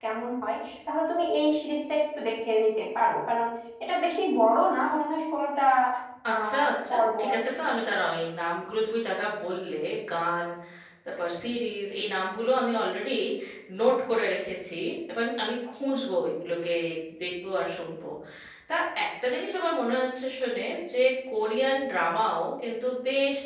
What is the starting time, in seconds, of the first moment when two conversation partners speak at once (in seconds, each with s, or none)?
6.3 s